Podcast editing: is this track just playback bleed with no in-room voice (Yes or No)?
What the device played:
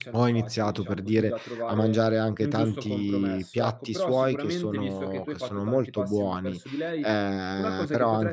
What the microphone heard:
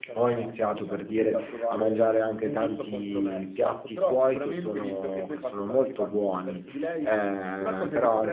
Yes